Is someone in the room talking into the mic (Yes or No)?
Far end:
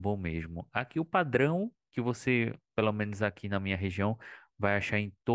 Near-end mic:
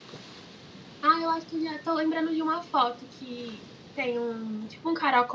Yes